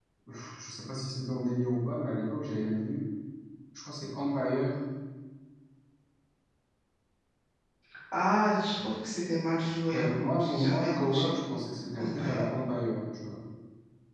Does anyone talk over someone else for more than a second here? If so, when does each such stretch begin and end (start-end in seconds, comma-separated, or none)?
9.9-11.3